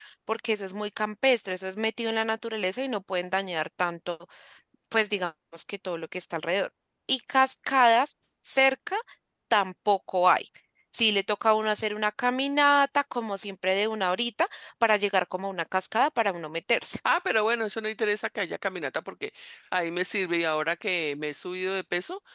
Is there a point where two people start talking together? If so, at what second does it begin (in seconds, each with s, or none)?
none